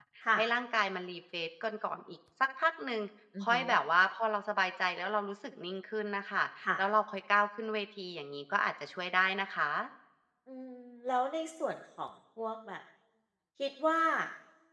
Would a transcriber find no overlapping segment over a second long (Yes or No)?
Yes